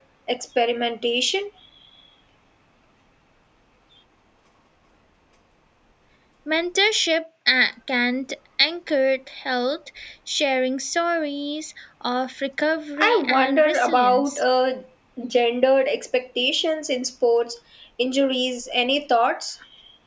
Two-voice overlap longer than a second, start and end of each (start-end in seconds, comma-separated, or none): 13.0-14.4